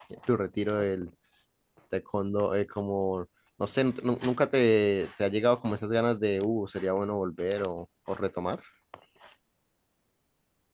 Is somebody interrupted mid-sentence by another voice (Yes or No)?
No